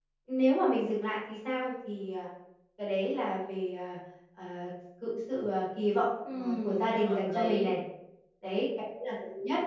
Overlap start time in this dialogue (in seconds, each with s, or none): 6.2 s